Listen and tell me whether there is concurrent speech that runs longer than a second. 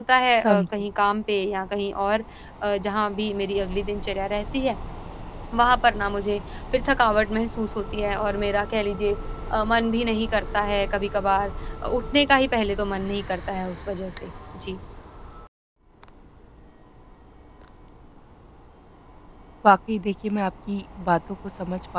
No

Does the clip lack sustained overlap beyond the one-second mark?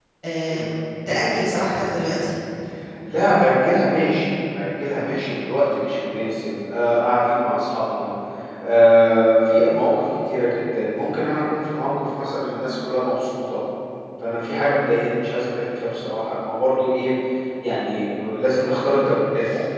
Yes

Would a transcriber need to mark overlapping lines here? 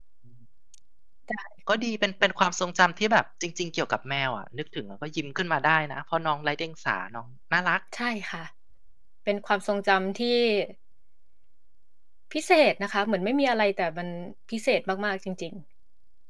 No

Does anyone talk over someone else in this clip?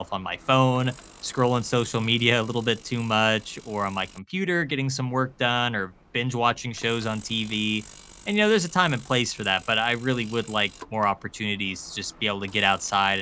No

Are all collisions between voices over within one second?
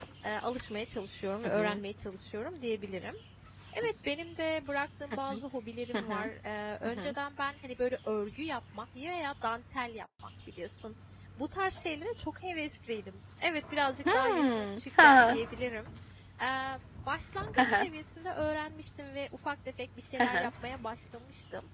No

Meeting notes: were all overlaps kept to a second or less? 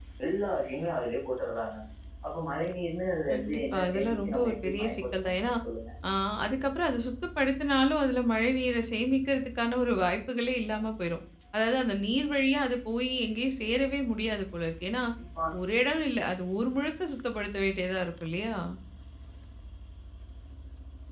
No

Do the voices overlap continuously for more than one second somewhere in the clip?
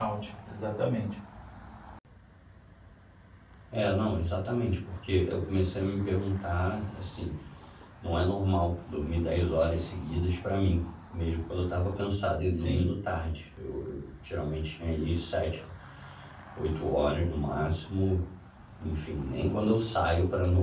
No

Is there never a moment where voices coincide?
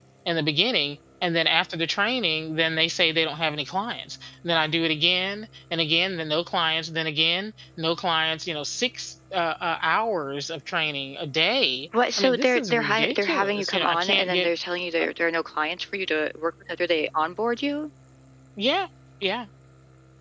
No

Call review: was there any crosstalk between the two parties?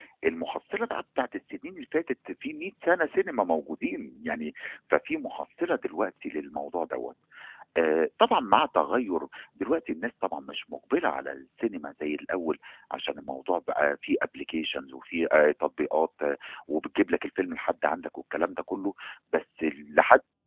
No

